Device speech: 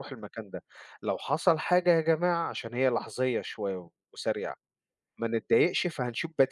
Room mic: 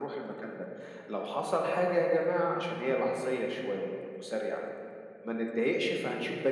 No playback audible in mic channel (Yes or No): No